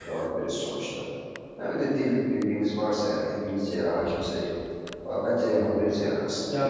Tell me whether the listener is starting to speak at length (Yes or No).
Yes